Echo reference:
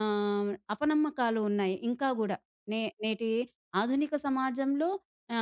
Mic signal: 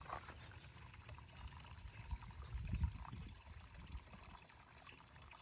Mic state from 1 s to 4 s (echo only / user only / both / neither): neither